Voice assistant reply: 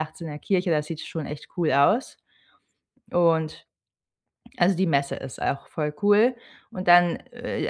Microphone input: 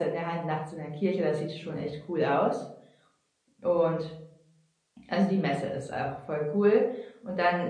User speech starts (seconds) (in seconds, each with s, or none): none